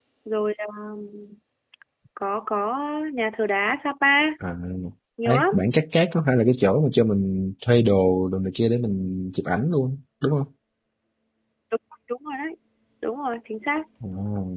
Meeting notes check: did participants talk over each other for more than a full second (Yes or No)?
No